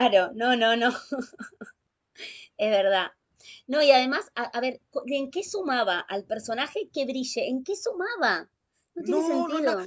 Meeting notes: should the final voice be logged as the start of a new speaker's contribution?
Yes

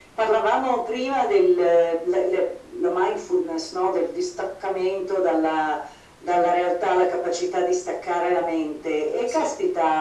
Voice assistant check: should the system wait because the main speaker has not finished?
Yes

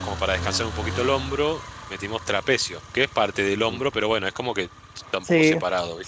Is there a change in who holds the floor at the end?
Yes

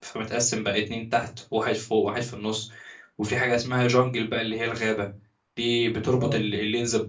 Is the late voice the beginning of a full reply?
No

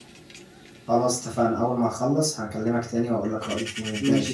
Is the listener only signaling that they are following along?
No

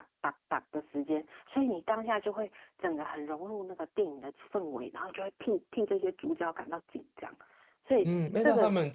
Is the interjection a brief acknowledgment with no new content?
No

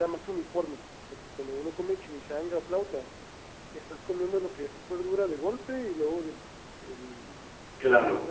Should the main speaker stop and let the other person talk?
No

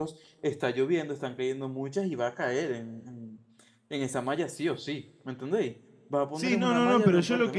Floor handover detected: Yes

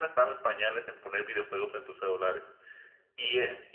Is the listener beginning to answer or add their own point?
No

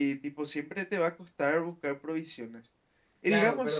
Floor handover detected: Yes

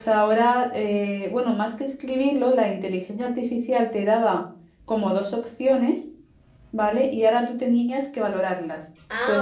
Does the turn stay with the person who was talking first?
Yes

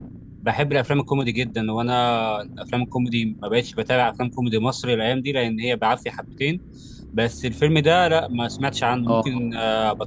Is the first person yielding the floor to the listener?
No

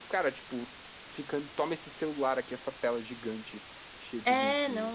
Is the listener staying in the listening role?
No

